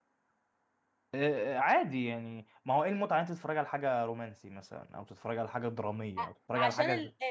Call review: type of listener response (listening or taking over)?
taking over